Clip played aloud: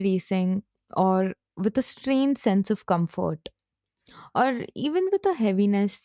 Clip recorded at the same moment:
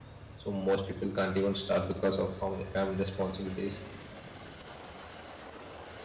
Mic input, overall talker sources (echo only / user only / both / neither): user only